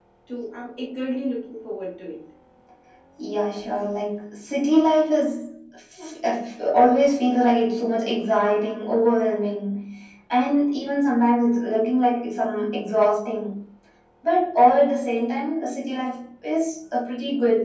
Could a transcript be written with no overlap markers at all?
Yes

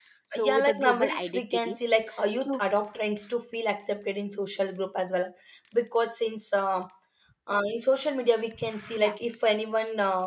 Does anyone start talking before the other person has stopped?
Yes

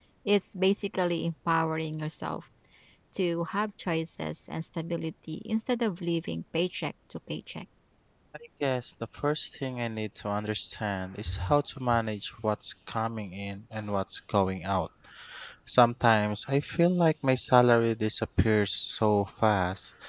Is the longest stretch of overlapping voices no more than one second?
Yes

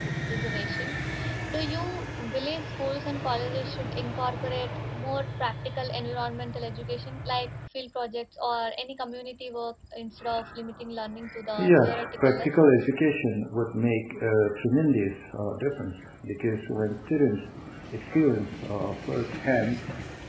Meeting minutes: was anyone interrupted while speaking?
Yes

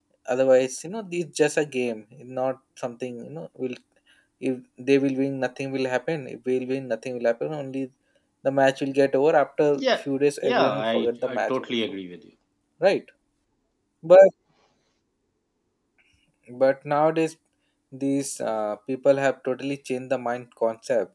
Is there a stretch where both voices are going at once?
Yes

